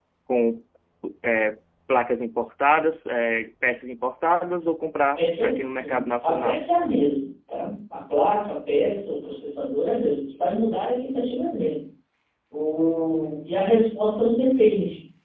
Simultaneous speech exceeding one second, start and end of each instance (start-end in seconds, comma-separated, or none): 5.2-6.6